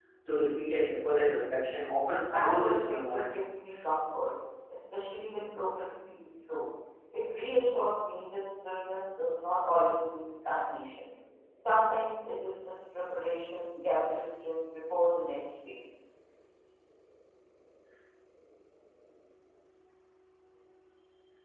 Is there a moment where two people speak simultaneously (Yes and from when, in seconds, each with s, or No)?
Yes, from 2.1 s